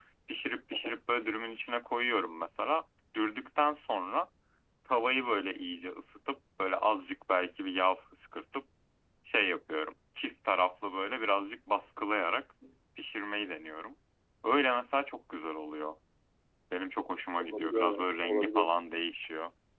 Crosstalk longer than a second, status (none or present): present